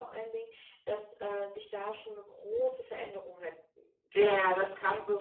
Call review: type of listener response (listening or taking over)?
taking over